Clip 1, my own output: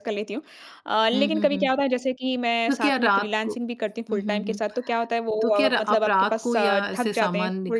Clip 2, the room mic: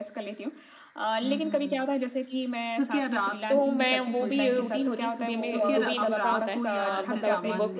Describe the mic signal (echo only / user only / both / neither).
both